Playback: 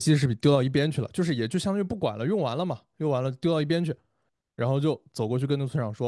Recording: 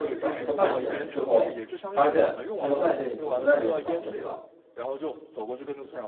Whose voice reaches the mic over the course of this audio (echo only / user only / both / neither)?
both